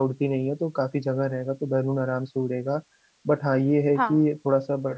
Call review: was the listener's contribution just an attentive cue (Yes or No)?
Yes